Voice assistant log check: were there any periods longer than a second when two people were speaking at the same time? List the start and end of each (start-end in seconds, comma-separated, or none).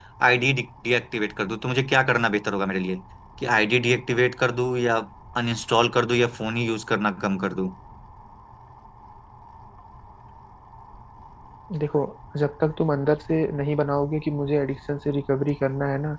none